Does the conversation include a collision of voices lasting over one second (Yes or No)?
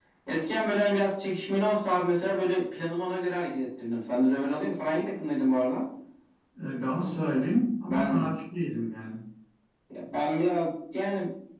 No